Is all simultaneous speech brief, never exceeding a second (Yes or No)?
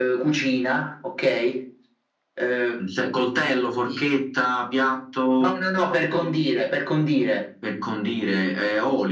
Yes